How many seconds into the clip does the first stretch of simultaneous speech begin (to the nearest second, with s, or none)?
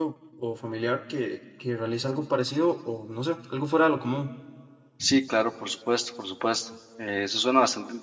none